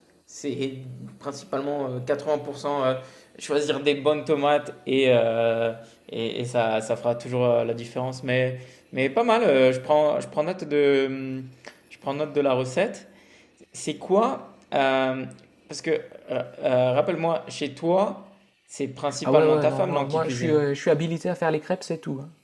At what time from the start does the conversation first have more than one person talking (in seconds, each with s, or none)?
19.2 s